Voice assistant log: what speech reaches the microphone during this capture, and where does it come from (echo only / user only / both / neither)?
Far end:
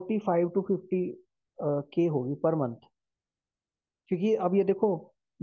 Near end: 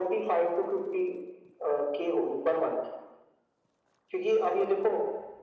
echo only